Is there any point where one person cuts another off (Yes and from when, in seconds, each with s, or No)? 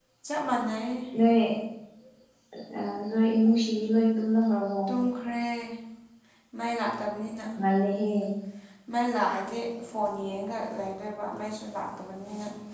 No